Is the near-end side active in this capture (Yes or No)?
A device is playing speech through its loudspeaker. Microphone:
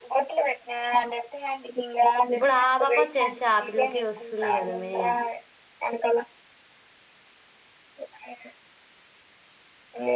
Yes